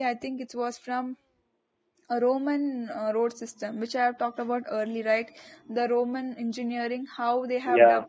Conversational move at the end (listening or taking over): listening